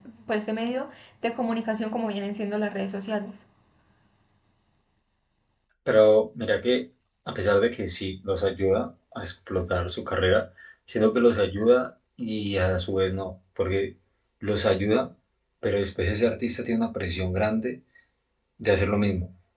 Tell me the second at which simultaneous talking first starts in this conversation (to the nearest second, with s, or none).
none